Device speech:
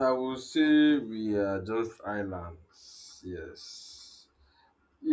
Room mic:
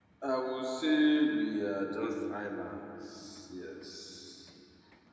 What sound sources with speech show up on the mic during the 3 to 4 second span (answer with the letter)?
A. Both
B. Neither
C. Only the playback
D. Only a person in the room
C